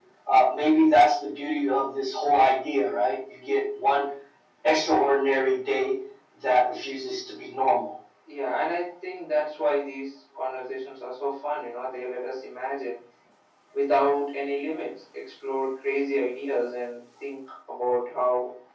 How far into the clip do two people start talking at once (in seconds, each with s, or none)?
none